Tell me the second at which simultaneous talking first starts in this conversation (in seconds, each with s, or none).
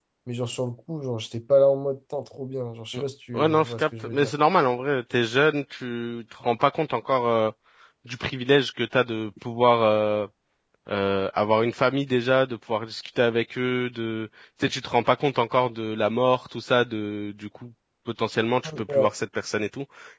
2.9 s